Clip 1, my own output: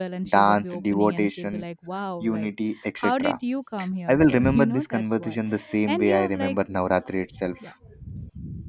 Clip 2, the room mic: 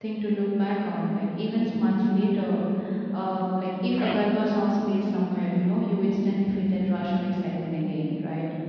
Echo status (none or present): none